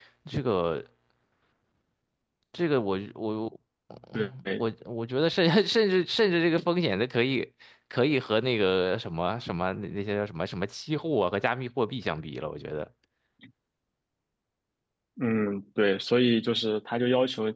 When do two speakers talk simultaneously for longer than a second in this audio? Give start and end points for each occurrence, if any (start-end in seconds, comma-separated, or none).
none